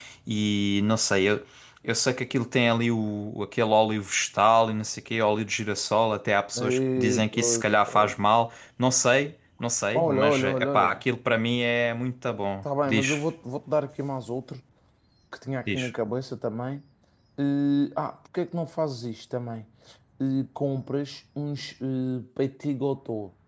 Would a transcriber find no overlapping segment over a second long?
No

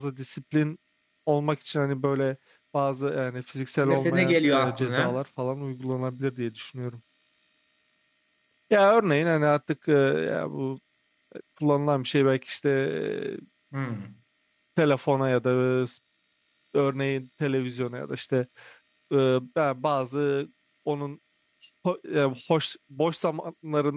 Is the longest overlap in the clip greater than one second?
Yes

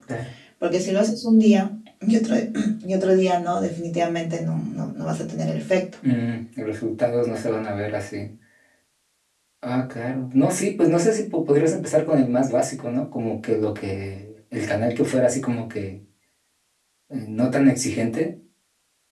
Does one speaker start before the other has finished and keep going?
No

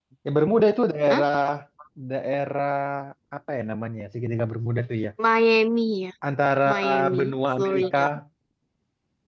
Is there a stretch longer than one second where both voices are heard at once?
Yes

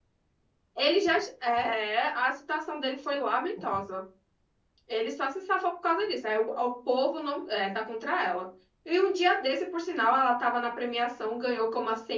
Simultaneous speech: No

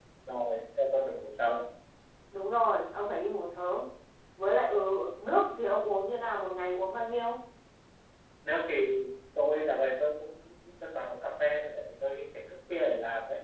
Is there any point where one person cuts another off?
No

